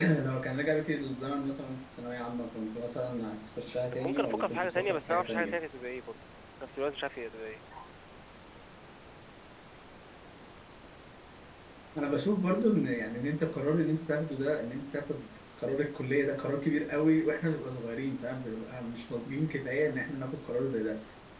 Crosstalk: present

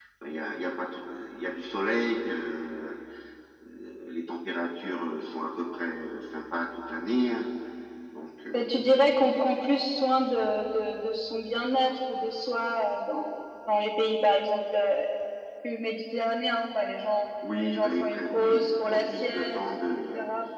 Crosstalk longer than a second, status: present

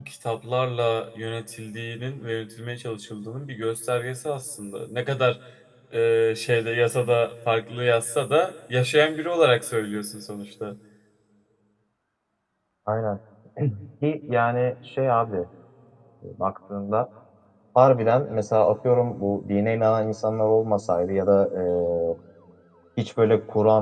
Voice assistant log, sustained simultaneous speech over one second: none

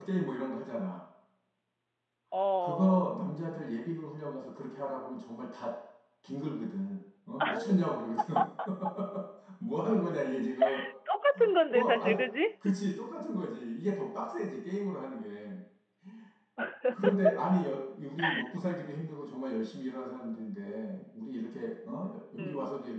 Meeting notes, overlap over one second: none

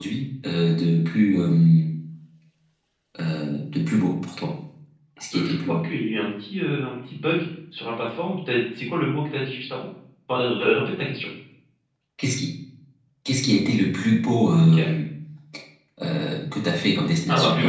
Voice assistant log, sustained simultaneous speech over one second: none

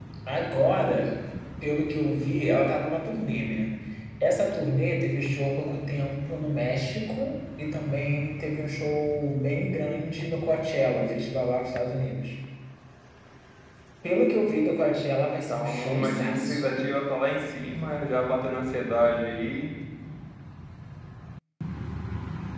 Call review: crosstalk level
present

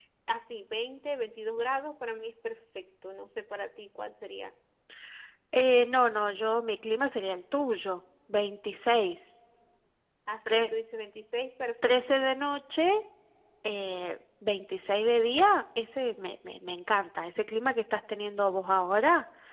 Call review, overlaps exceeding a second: none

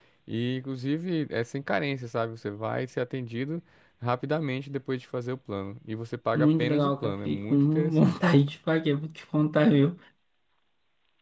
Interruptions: present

